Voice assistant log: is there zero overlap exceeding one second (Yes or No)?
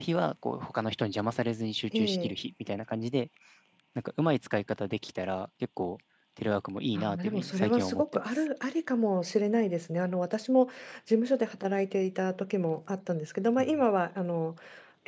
No